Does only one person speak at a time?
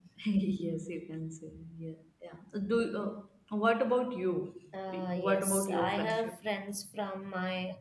No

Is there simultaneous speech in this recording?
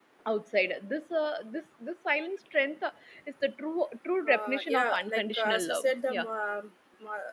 Yes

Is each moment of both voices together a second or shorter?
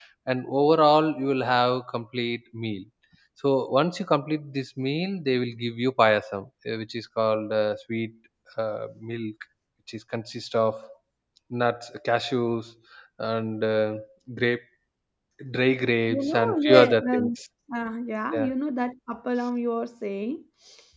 No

